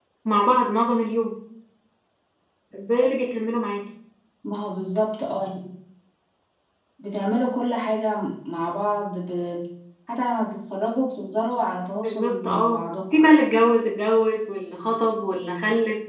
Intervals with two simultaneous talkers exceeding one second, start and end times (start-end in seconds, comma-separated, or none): 11.9-13.2